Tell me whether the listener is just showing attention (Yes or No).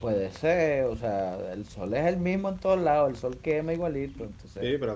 No